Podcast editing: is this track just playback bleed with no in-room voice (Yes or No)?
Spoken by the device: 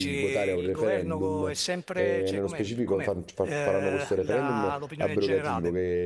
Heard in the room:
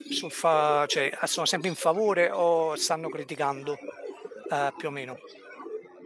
No